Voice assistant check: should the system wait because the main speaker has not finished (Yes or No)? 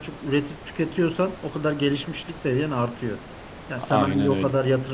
Yes